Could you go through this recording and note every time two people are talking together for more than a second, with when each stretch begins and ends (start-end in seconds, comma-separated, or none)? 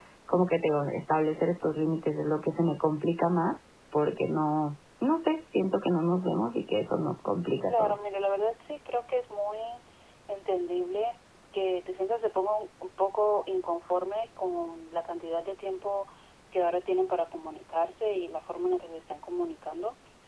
none